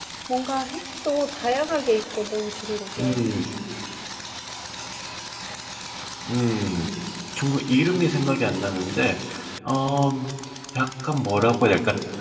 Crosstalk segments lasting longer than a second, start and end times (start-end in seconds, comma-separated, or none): none